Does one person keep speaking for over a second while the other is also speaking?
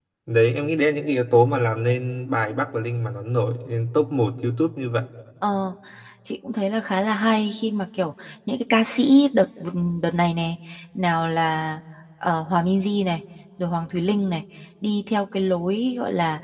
No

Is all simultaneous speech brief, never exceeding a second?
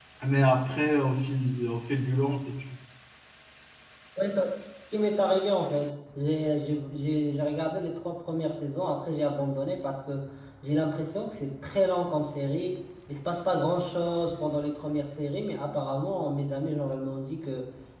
Yes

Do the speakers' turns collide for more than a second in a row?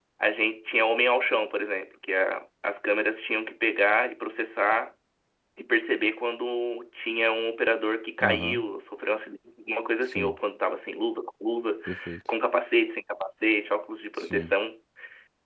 No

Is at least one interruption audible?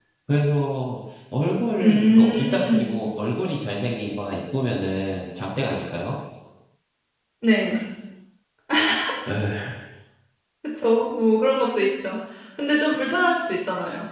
Yes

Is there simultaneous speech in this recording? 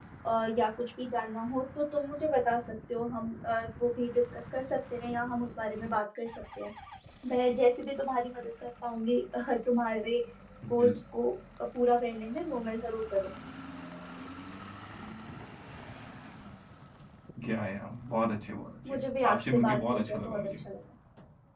Yes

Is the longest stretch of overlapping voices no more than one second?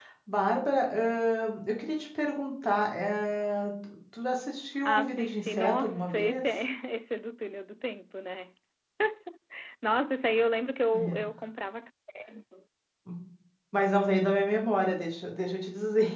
No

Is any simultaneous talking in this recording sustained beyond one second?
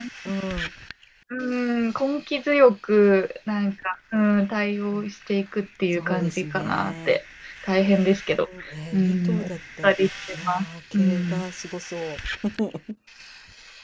Yes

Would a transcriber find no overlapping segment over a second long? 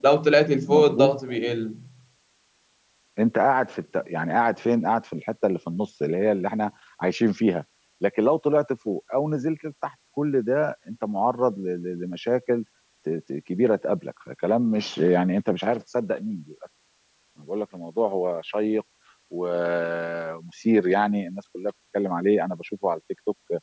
Yes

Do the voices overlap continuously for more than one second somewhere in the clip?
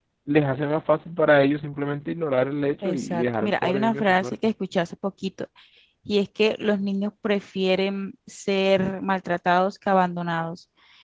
Yes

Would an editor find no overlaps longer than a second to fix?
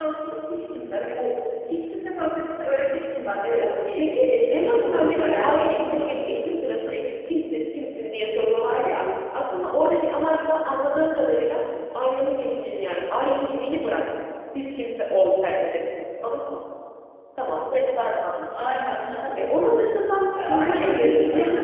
No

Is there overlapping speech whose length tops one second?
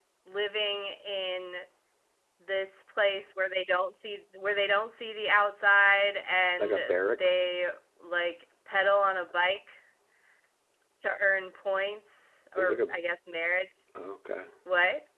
No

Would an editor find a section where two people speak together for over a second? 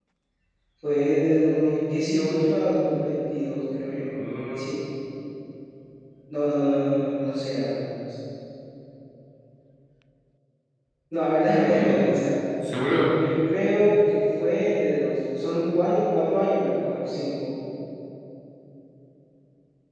No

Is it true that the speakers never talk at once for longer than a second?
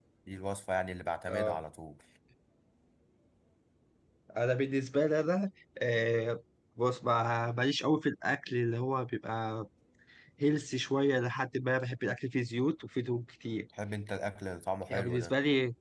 Yes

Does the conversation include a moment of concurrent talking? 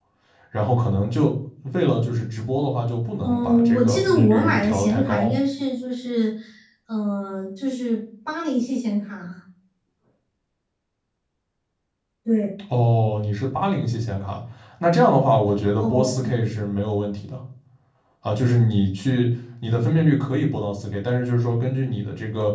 Yes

